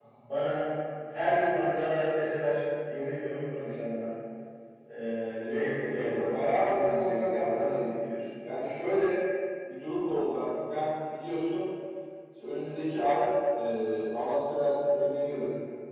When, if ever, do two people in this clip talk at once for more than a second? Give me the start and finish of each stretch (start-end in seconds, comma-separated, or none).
5.3-7.8